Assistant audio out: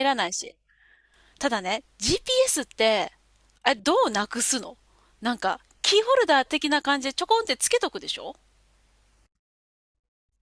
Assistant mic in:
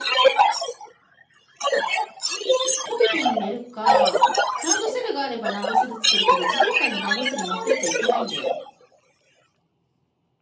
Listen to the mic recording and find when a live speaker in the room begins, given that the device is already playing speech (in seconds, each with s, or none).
2.8 s